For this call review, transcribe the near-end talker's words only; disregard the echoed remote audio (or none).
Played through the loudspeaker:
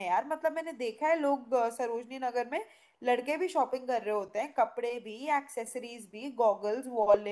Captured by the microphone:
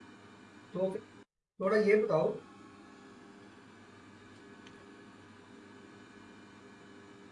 तो फिर थोड़ा ये बताओ